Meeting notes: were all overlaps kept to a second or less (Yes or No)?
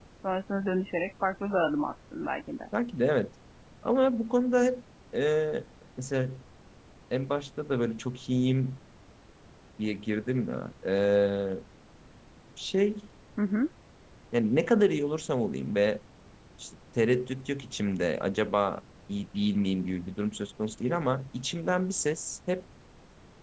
Yes